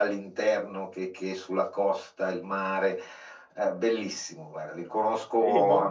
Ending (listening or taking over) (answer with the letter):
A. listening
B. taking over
B